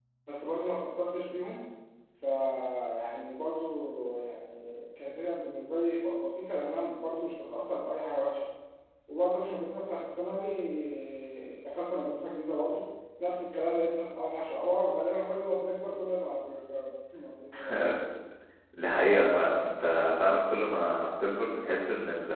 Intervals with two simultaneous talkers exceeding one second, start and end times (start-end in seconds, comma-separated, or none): none